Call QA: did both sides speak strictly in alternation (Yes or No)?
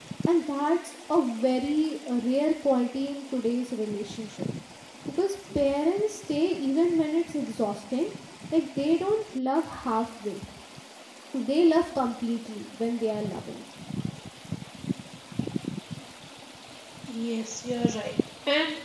Yes